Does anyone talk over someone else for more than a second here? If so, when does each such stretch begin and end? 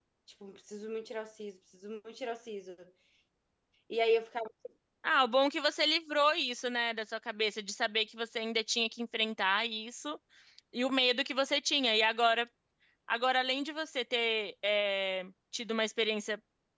none

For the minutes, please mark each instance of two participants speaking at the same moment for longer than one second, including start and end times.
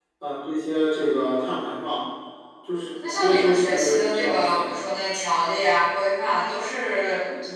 3.0-4.8

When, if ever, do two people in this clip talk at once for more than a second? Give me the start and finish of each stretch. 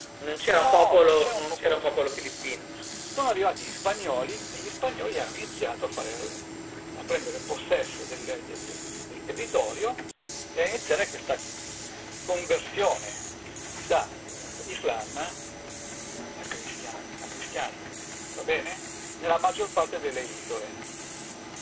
0.6-2.5

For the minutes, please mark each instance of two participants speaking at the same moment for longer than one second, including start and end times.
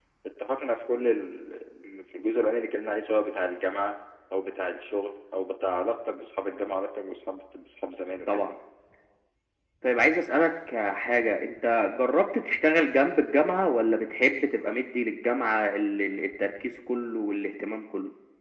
none

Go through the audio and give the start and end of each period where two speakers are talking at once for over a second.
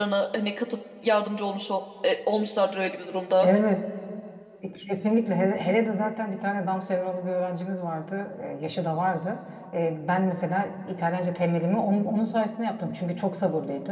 none

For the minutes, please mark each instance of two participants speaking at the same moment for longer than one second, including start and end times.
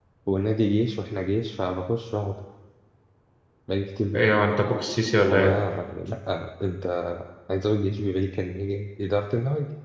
none

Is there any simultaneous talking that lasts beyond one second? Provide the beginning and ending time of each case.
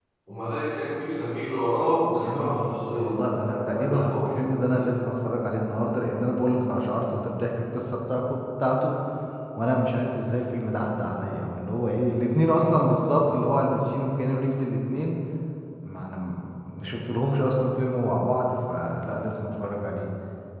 2.1-4.9

